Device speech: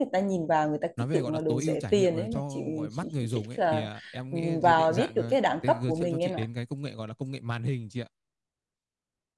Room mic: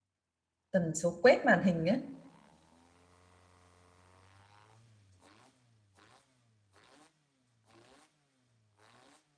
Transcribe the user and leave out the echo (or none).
tần số quét màn hình